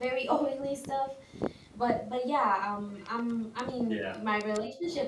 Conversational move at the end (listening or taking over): listening